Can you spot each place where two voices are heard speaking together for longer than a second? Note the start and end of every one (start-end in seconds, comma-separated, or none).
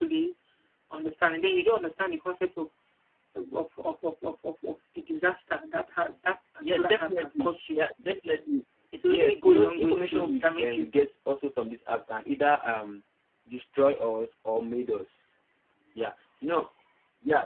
6.6-7.8, 9.1-10.9